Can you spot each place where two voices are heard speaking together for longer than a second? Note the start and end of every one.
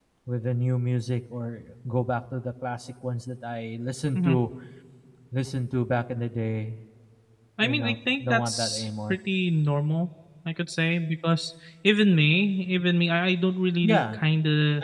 7.6-9.2

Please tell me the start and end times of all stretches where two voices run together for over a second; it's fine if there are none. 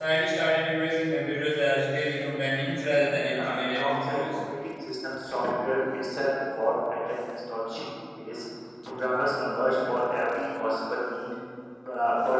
3.0-4.4

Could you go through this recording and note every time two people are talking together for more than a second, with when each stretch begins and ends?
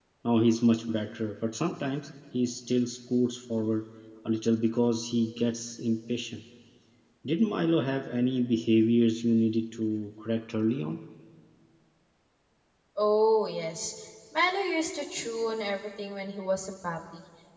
none

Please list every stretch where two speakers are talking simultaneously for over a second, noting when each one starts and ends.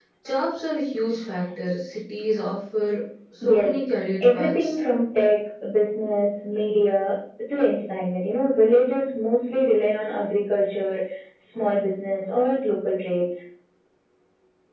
3.5-4.8

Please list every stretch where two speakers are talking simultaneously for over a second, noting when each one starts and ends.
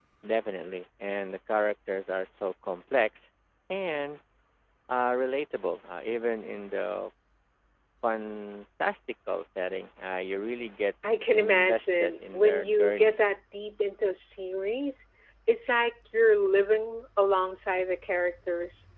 11.3-13.2

